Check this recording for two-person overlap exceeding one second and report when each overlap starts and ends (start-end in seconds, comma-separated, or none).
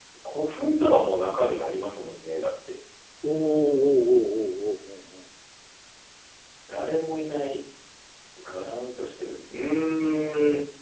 none